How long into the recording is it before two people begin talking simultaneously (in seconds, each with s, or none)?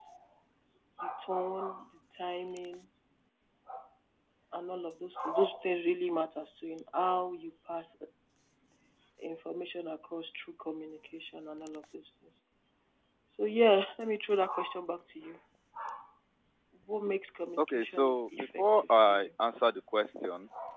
17.6 s